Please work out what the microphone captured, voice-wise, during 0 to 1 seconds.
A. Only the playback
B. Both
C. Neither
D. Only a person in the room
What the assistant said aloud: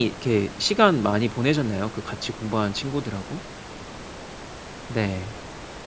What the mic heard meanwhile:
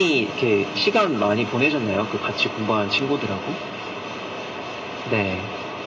A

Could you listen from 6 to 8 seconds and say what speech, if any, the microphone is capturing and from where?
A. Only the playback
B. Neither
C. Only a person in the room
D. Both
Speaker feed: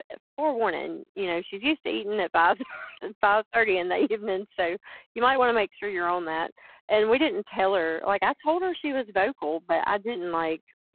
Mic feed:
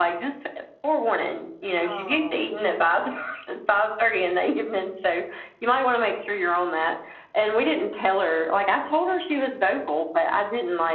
A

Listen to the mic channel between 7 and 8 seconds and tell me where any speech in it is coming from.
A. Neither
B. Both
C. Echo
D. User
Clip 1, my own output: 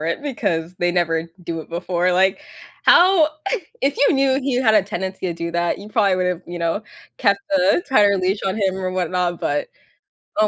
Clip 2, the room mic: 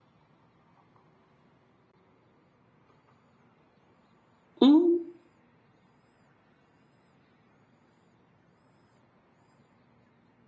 A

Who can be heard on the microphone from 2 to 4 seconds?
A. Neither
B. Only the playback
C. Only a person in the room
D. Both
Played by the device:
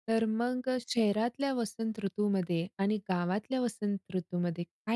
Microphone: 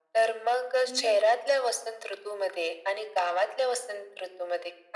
B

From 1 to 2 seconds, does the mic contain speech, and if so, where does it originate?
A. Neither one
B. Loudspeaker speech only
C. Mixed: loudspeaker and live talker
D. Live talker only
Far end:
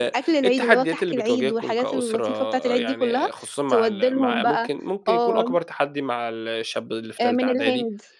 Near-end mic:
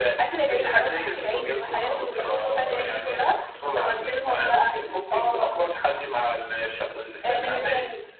B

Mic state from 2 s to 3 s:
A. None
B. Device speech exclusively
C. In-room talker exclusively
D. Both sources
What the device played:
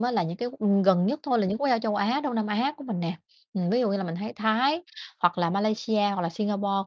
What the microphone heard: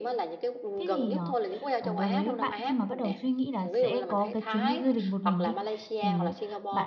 D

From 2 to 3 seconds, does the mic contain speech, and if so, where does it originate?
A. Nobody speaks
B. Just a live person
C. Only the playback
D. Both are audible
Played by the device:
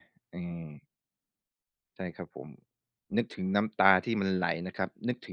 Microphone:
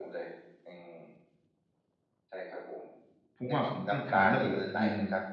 C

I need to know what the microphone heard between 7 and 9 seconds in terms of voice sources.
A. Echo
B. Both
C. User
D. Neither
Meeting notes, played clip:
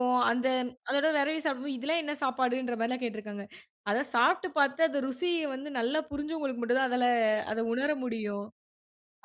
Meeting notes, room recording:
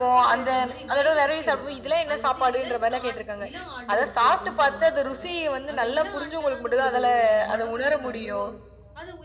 B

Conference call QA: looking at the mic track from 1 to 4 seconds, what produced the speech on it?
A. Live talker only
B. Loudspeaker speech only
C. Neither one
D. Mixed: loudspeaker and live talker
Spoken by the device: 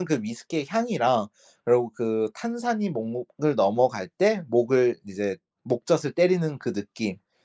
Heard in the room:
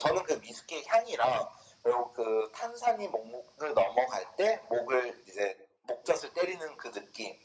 B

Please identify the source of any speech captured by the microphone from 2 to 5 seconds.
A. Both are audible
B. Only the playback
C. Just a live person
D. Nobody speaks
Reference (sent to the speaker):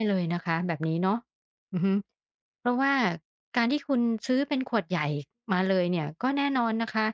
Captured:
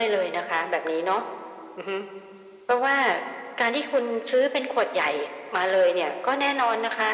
B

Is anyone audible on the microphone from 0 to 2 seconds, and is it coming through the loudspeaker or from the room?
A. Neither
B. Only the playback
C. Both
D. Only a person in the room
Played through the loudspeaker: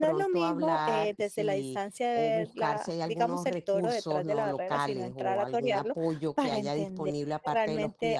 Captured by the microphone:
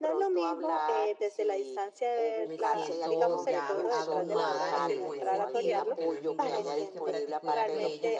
B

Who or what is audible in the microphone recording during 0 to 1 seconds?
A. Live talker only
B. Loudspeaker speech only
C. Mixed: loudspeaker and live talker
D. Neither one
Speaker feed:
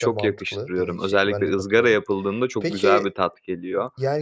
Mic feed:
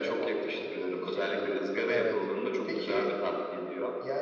B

